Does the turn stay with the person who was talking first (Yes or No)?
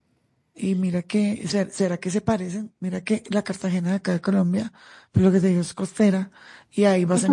Yes